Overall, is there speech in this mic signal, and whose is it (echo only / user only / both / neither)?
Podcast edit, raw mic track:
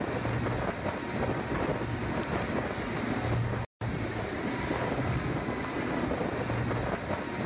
neither